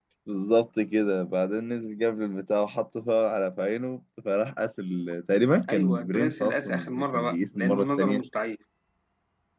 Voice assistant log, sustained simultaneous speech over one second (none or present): present